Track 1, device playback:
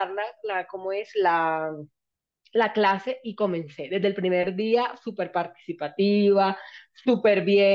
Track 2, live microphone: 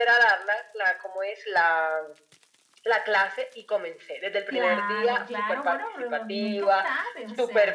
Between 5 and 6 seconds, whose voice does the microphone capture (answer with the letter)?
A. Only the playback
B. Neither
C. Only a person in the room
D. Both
D